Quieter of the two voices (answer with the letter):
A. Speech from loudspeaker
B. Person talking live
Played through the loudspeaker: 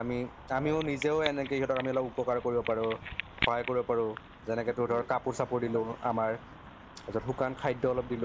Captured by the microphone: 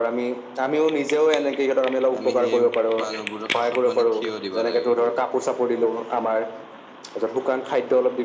B